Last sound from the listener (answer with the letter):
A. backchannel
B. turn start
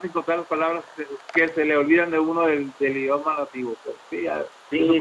B